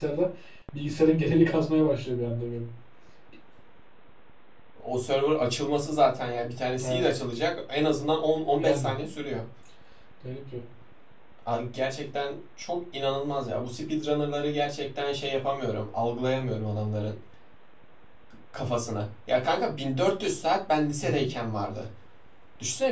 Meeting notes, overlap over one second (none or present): none